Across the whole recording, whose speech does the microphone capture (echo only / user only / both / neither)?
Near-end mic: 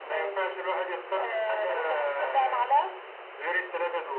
echo only